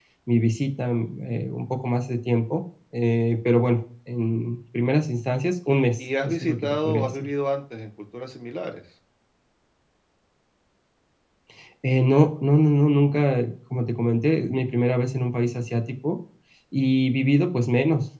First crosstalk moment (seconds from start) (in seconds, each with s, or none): 6.0 s